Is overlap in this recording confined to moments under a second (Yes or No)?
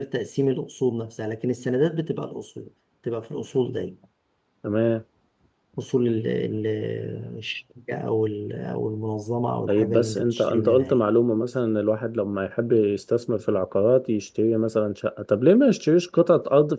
No